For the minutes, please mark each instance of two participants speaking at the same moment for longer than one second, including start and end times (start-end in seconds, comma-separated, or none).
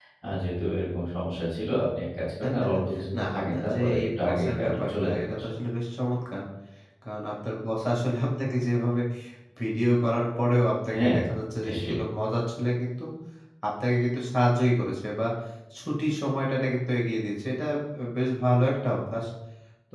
3.2-5.5